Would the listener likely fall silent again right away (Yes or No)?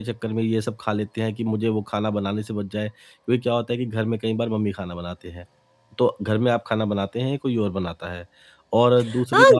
No